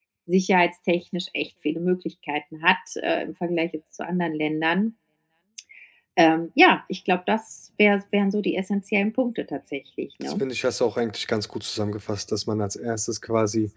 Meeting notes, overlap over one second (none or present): none